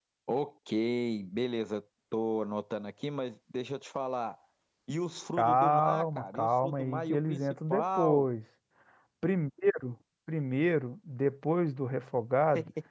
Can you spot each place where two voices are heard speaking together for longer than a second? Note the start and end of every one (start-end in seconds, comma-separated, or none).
5.4-8.3